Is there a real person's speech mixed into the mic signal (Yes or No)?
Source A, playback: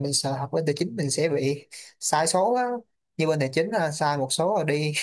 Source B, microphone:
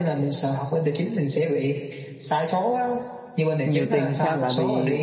Yes